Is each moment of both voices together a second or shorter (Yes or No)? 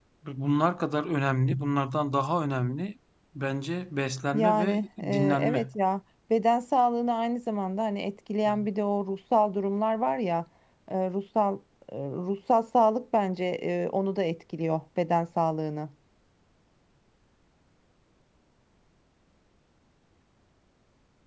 No